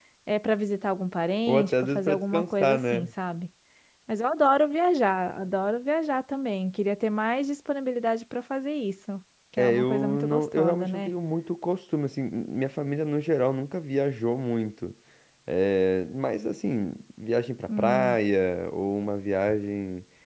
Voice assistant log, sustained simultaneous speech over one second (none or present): present